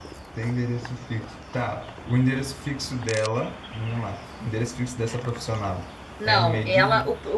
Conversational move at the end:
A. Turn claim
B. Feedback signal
A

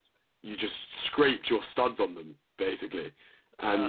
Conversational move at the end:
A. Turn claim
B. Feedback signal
B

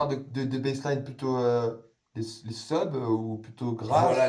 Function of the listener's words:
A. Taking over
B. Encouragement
A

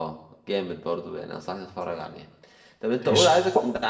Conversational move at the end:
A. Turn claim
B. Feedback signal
B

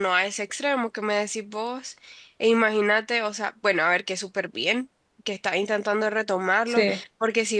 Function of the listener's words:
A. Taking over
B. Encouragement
B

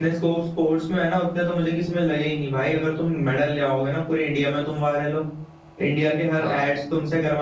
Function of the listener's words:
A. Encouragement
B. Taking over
A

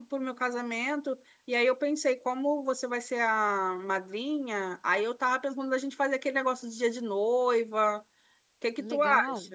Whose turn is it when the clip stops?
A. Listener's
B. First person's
A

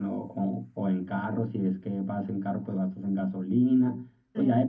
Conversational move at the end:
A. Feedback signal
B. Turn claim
A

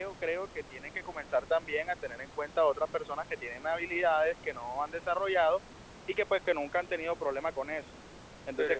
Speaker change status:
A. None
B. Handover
B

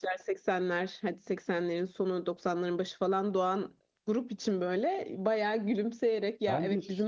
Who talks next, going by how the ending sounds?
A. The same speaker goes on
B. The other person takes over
A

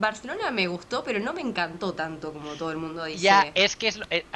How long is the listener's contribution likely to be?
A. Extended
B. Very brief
A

